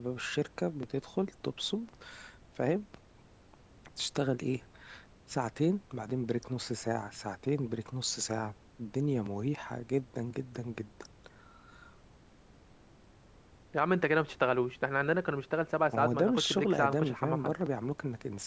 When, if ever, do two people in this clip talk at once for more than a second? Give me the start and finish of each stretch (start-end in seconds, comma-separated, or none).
15.9-17.5